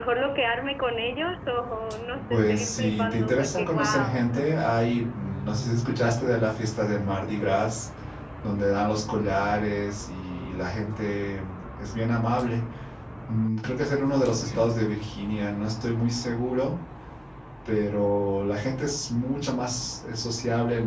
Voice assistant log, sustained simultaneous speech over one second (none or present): present